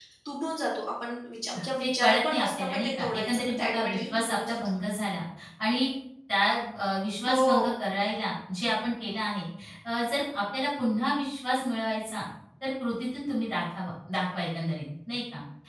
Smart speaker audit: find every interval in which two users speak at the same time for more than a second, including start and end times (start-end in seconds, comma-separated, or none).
1.6-4.6